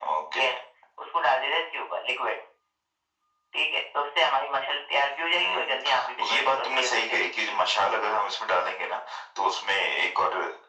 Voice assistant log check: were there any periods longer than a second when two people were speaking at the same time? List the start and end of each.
5.3-7.5

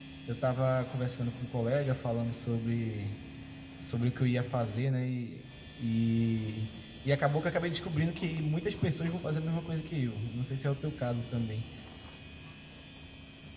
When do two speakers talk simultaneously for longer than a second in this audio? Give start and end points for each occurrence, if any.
none

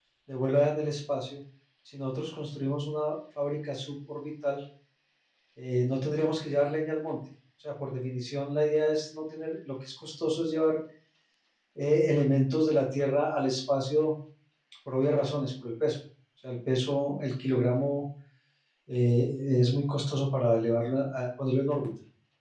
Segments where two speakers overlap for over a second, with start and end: none

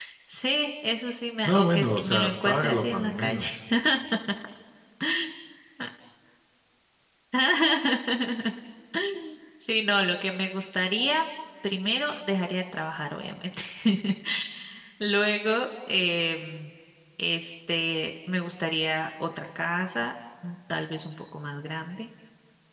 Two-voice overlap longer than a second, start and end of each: 1.4-3.5

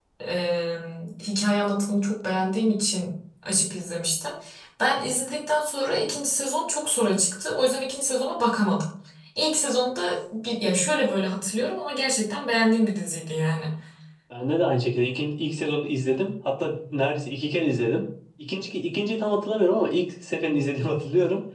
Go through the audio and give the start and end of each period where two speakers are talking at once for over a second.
none

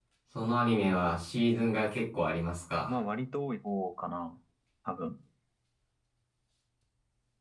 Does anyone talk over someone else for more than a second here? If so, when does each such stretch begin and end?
none

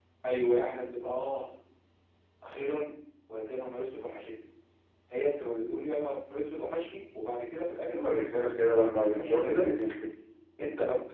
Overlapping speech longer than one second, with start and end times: 7.9-9.7

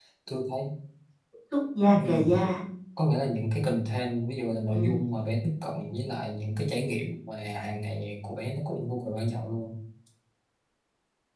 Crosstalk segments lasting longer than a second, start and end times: none

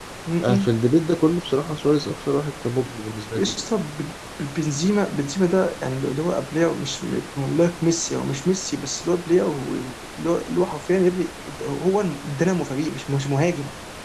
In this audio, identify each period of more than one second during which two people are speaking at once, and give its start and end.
none

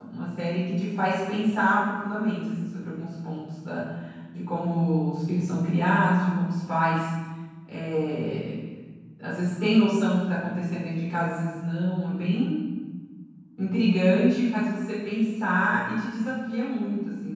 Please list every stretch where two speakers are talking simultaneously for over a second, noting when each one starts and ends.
none

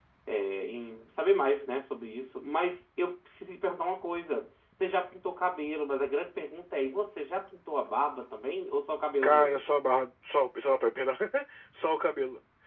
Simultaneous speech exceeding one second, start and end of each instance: none

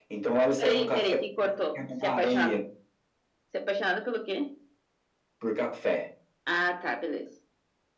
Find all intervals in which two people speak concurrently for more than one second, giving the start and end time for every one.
0.6-2.6

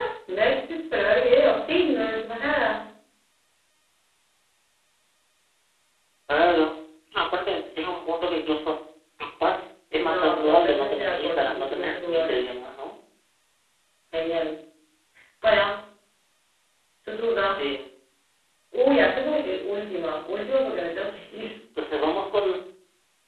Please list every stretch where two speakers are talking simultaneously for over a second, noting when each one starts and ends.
10.0-12.4

